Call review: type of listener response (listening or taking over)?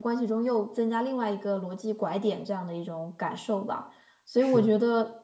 listening